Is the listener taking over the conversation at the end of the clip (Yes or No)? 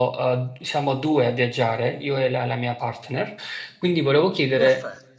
No